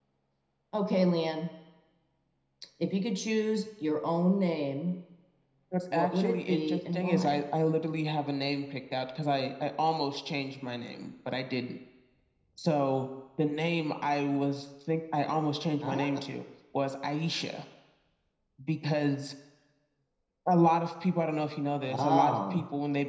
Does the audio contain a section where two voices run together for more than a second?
Yes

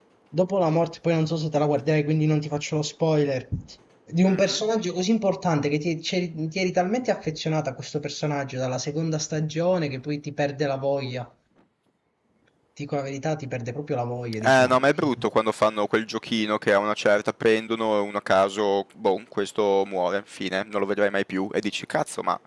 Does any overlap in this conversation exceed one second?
No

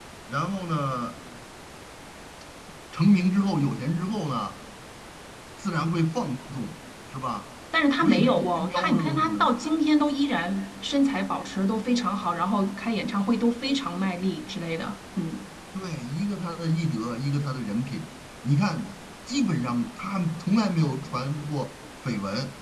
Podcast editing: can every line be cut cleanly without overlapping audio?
No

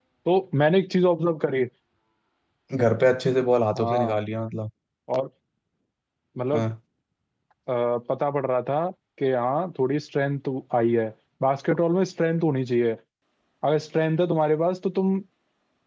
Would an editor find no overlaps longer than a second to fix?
Yes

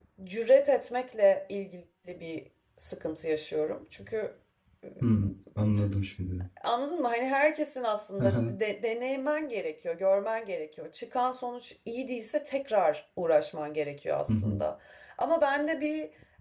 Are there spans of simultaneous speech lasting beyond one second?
No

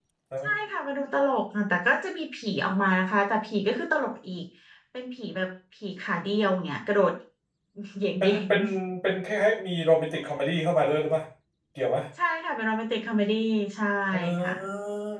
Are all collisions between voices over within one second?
Yes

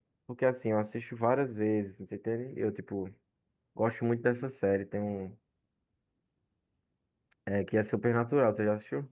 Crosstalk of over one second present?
No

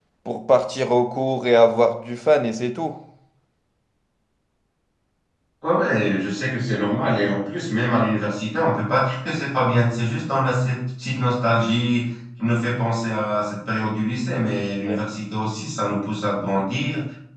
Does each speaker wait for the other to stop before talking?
Yes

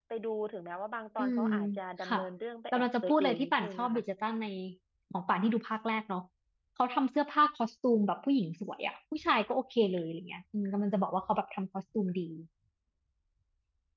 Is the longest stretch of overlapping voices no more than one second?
No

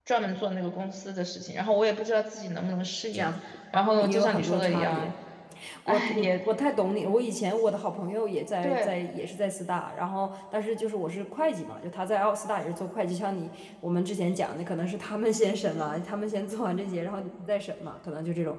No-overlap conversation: No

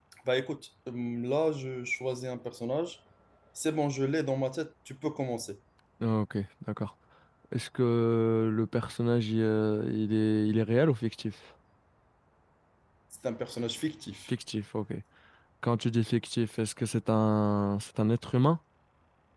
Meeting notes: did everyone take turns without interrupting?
Yes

